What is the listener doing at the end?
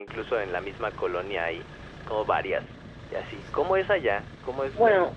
taking over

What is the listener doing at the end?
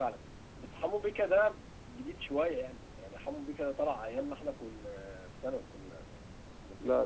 taking over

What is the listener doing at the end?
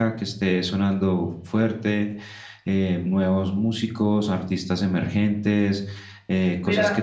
listening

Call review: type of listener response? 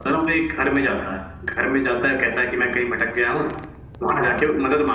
listening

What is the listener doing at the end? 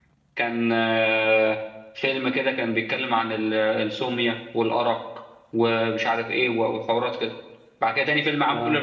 listening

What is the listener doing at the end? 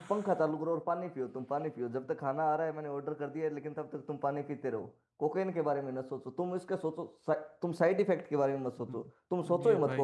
taking over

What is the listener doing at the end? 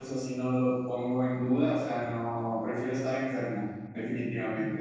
taking over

